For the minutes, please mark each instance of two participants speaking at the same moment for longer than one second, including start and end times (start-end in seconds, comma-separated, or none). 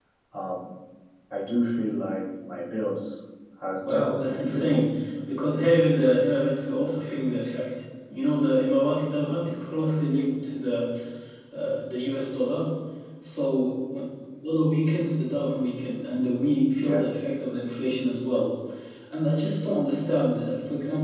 3.9-5.1